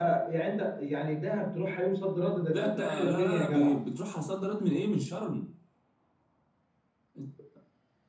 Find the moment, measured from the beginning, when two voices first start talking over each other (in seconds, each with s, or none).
2.5 s